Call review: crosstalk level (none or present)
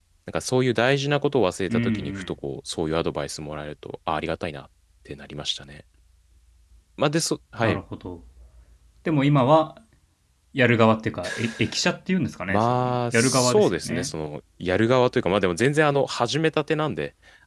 present